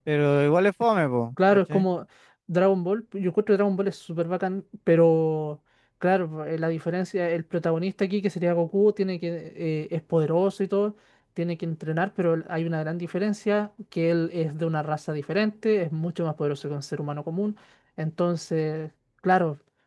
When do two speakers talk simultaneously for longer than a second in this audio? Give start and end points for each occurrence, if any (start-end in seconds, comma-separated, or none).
none